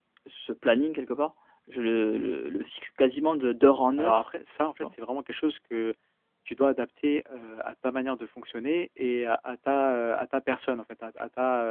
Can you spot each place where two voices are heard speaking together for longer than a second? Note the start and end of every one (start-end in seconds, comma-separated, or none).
none